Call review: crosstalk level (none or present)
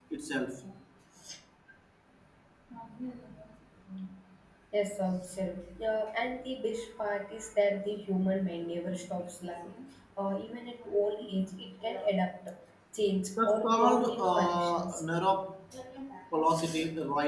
present